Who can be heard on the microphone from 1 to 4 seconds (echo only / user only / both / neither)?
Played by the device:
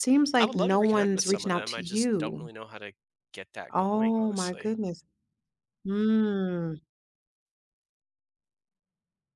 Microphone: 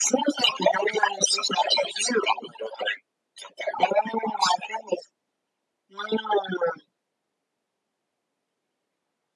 echo only